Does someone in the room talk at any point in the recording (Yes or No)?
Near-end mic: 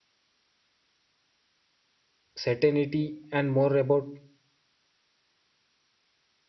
Yes